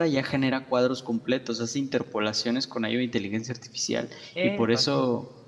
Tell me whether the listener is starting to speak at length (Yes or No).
No